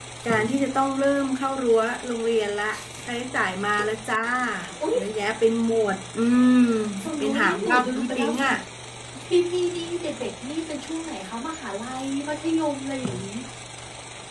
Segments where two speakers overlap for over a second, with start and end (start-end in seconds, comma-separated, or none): 7.2-8.5